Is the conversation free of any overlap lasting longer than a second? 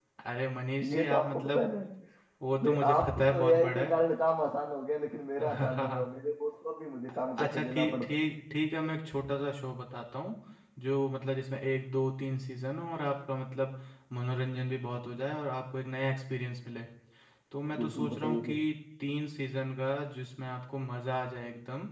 No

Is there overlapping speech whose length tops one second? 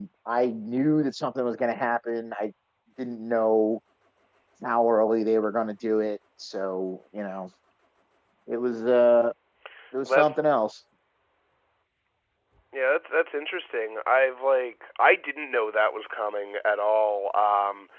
No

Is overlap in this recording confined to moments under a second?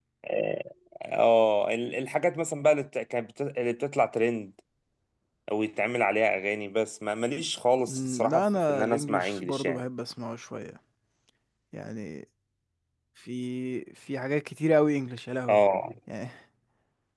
No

